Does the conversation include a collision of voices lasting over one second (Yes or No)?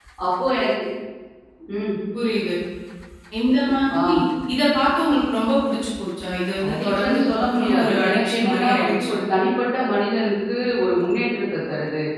Yes